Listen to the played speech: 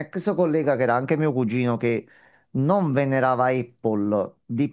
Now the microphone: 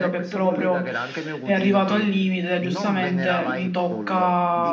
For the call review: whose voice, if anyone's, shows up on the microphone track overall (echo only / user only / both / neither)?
both